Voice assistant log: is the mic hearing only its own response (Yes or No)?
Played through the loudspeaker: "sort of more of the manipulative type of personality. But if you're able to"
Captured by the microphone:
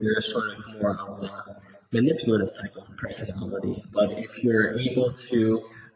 Yes